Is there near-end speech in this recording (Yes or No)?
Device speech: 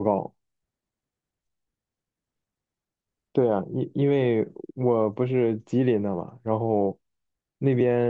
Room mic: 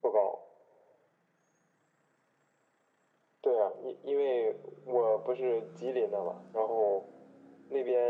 No